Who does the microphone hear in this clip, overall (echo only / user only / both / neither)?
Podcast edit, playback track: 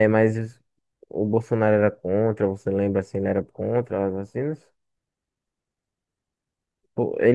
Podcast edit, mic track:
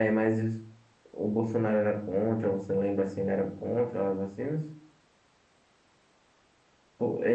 echo only